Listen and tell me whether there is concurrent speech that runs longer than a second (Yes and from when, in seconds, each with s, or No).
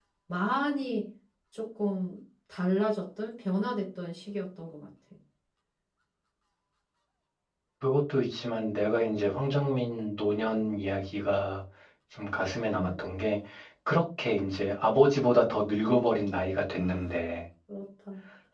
No